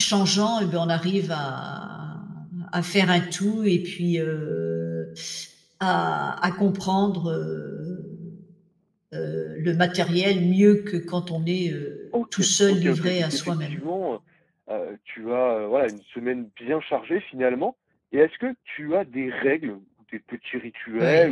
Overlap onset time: 12.3 s

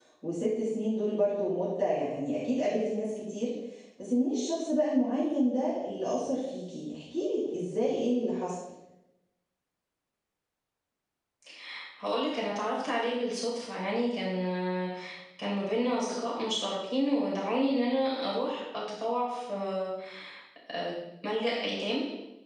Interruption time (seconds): none

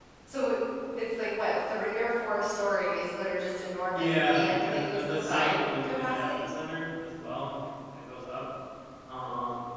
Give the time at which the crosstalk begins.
3.9 s

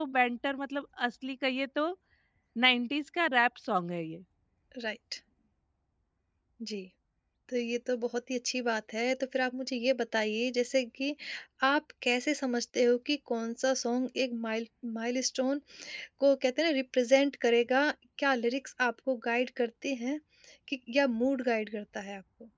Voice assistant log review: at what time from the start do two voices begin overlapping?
none

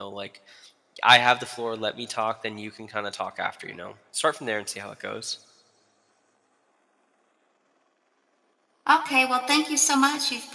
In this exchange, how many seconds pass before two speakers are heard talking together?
none

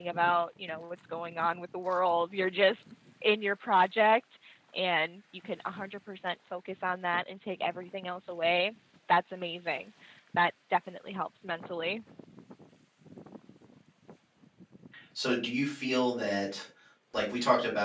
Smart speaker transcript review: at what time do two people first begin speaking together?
none

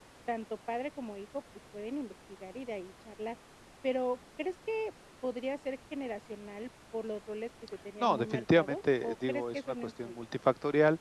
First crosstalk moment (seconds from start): 8.0 s

